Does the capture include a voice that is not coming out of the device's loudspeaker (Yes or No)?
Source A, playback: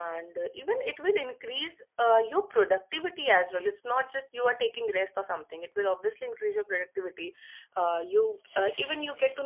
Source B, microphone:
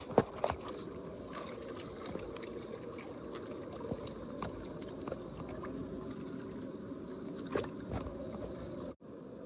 No